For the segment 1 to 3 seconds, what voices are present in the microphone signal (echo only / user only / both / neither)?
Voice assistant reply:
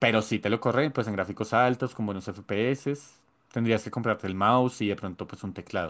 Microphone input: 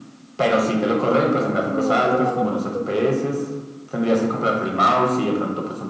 both